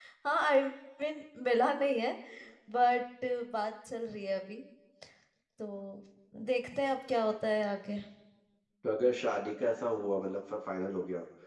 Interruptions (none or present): none